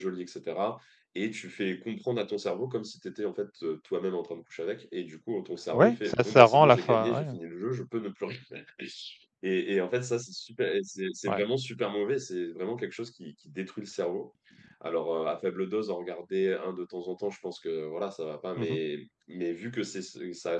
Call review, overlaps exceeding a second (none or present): present